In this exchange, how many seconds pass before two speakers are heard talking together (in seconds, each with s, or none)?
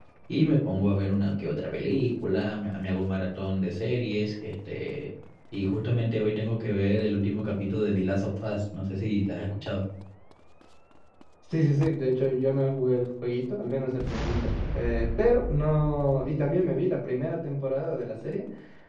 none